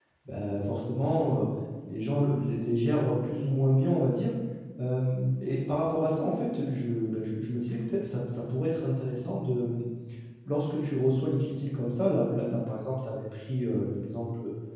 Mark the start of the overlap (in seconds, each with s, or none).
none